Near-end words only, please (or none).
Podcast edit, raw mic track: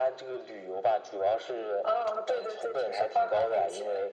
none